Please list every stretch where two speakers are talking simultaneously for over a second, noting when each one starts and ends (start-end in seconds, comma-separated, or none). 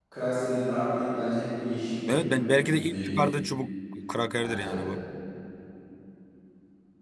2.0-3.2